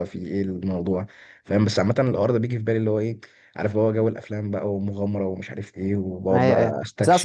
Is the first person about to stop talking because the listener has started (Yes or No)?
Yes